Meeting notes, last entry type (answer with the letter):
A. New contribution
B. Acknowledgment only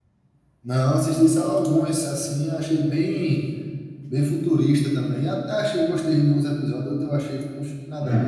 A